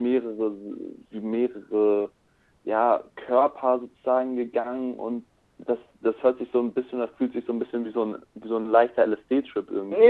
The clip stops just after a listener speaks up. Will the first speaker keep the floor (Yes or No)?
No